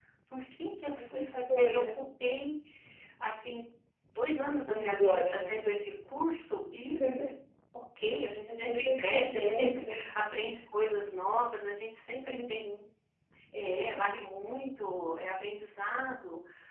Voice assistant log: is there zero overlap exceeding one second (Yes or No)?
No